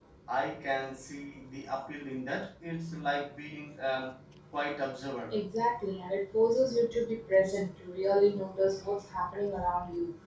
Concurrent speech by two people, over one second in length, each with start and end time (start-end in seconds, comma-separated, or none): none